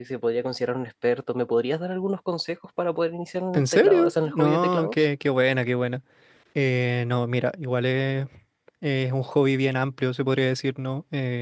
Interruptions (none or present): present